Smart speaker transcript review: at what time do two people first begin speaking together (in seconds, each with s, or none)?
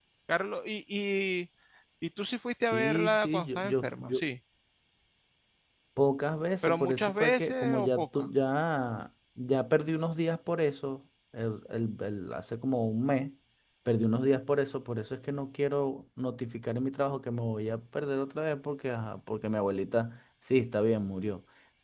2.6 s